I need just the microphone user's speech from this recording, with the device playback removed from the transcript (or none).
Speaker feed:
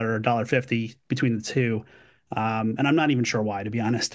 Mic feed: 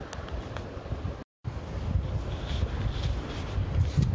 none